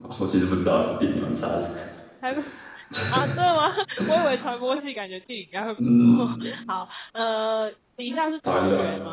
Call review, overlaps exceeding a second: none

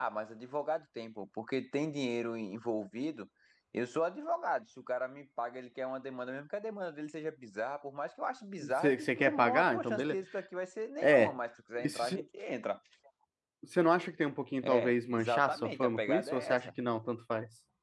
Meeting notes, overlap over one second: present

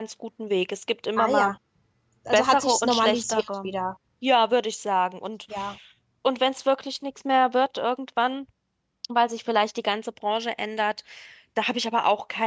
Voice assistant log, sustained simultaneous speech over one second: present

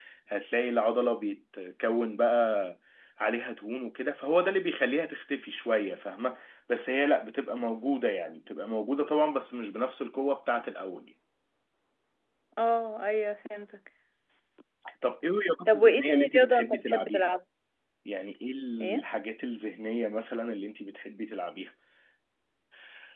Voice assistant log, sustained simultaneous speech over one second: present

